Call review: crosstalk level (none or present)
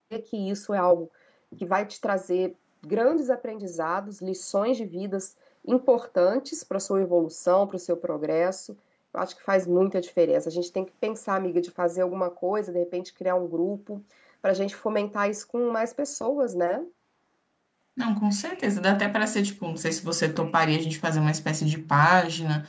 none